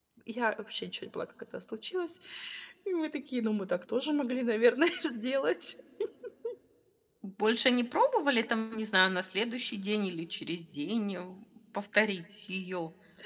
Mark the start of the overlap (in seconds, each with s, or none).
none